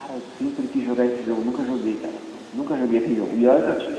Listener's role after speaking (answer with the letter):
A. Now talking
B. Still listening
B